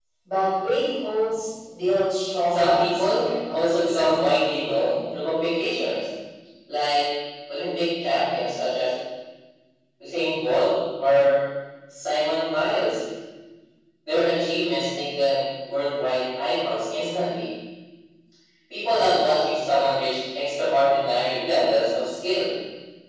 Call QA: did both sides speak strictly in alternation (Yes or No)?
No